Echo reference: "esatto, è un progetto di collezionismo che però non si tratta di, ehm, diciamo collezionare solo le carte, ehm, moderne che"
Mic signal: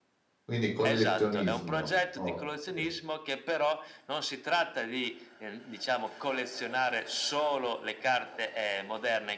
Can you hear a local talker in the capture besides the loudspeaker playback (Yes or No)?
Yes